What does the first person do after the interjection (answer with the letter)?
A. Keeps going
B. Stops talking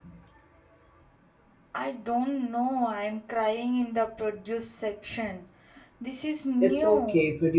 B